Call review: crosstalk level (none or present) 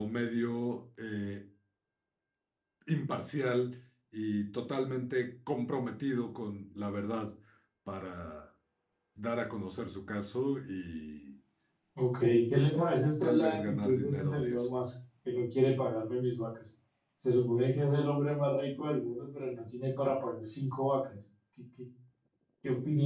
present